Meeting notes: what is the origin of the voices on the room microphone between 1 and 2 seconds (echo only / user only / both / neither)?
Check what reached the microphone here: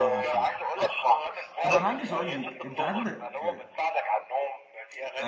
both